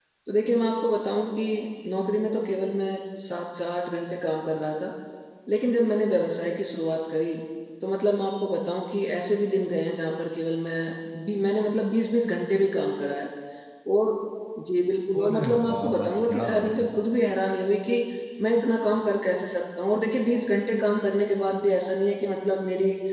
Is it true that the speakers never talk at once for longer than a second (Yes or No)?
No